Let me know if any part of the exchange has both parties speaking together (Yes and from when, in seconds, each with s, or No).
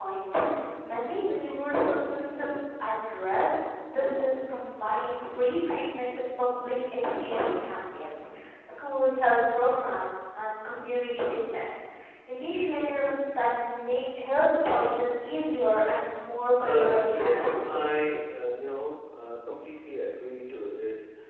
Yes, from 16.6 s